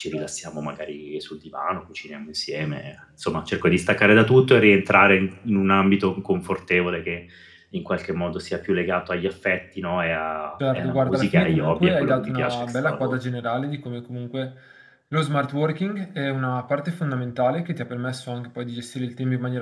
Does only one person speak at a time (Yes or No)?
No